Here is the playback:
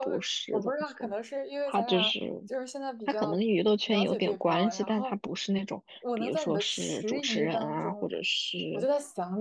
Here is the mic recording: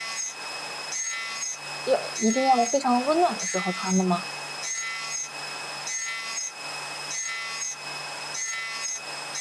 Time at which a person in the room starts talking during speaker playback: 1.8 s

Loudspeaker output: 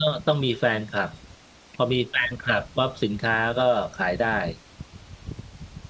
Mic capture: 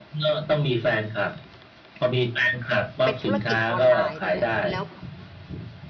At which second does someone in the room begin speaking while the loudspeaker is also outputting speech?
3.0 s

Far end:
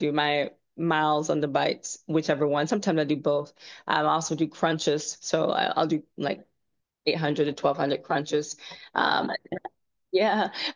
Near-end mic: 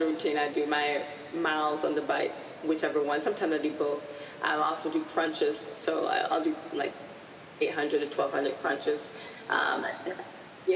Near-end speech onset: none

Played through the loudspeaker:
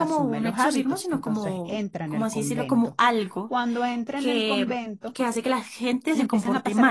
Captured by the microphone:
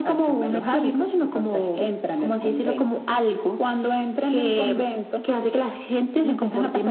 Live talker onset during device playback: none

